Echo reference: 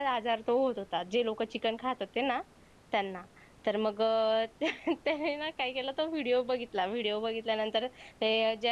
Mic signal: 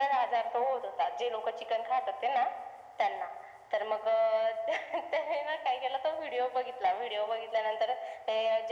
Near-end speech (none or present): none